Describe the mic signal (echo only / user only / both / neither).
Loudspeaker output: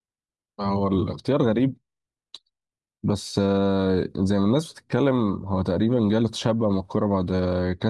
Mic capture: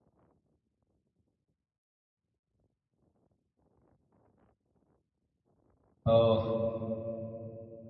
user only